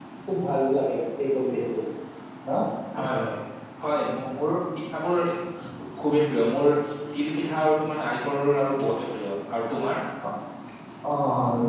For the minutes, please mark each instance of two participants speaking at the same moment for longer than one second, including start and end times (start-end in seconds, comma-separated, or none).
none